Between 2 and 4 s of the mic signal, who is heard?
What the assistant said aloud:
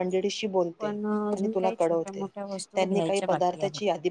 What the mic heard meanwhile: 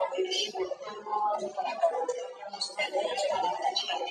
echo only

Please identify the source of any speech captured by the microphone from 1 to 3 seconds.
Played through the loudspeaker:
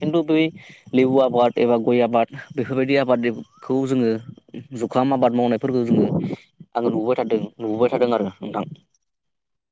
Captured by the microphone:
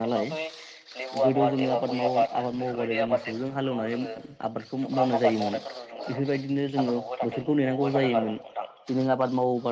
both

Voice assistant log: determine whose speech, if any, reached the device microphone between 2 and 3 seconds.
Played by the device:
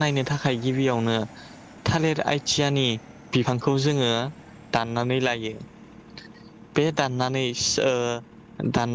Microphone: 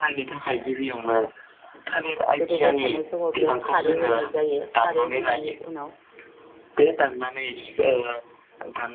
both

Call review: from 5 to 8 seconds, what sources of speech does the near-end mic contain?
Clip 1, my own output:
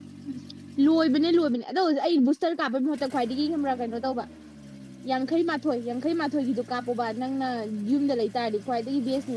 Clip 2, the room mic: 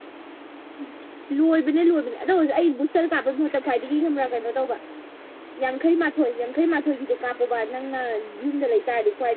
echo only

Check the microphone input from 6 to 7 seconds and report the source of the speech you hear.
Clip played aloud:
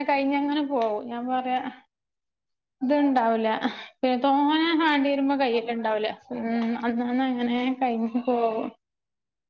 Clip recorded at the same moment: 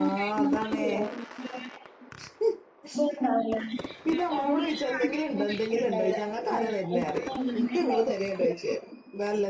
both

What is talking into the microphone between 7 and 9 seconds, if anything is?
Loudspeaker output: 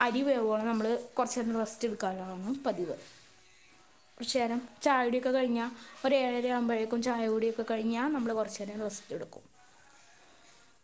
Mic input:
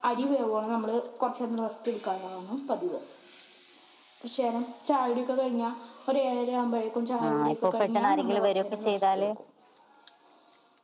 both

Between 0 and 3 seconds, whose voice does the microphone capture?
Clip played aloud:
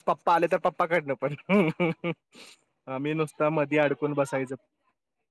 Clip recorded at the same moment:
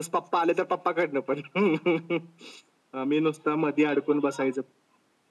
echo only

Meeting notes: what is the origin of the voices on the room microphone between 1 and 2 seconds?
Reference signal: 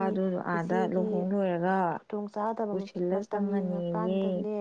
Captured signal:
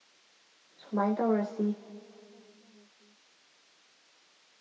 user only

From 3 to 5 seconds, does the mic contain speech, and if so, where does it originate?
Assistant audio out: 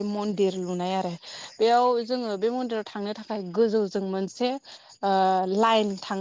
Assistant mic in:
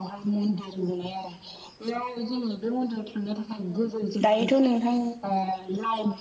both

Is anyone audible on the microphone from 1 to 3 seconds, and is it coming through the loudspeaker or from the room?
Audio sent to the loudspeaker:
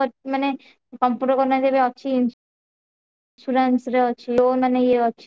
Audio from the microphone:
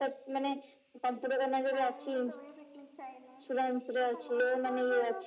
both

